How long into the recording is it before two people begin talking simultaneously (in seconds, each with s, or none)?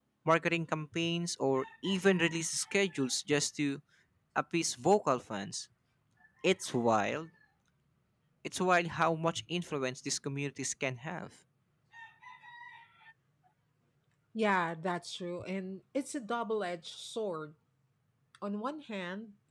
none